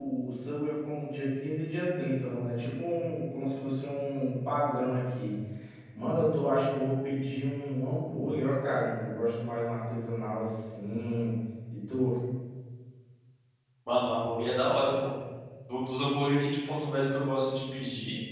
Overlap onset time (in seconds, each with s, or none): none